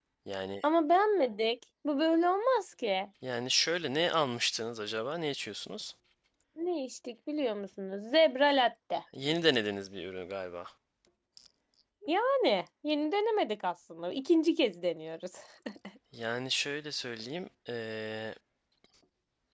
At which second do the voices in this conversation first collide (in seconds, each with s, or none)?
none